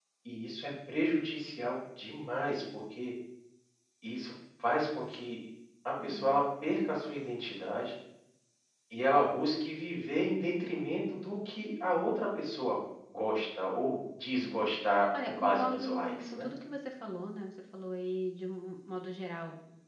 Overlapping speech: Yes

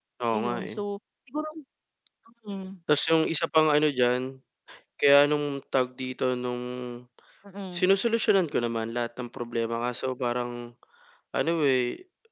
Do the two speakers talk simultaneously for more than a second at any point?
No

